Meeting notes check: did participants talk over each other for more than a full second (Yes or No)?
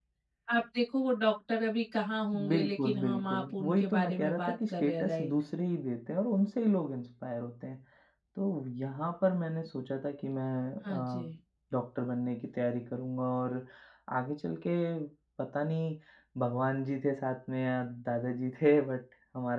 Yes